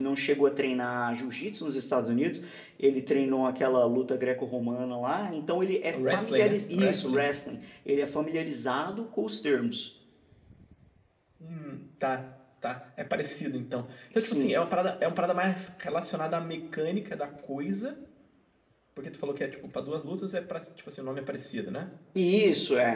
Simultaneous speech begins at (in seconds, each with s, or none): 5.9 s